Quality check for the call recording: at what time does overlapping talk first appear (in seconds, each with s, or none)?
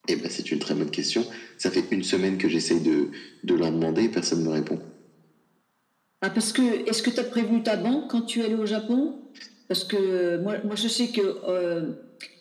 none